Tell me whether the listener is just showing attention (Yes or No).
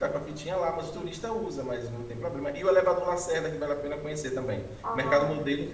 Yes